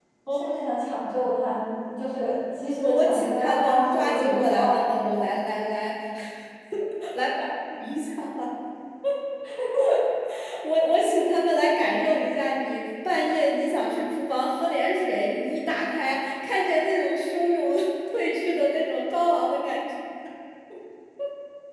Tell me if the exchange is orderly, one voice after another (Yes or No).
No